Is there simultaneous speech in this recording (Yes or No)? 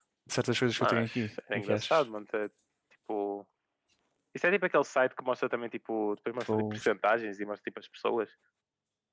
Yes